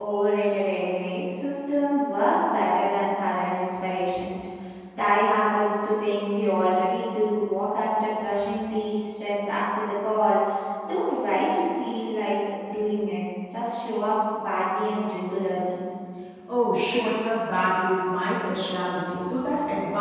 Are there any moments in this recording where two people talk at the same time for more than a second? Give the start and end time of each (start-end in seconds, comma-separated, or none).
none